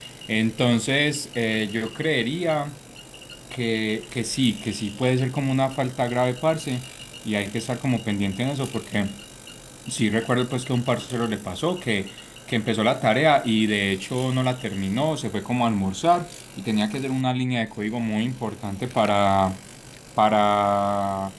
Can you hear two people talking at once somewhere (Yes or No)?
No